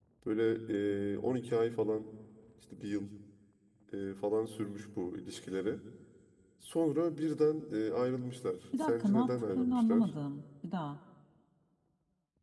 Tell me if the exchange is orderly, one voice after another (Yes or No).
No